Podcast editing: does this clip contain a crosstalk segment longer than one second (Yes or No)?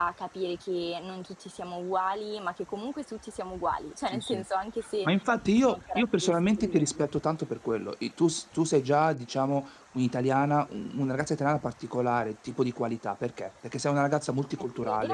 Yes